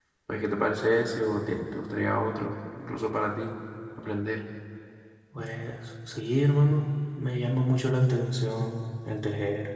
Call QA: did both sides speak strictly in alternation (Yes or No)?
Yes